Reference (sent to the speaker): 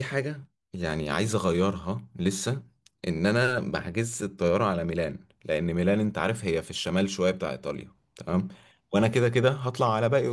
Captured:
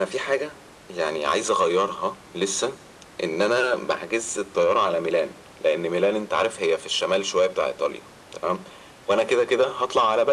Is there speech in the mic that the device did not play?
No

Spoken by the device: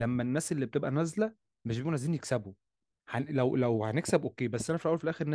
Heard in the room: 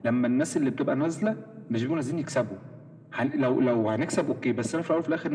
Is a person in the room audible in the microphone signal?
No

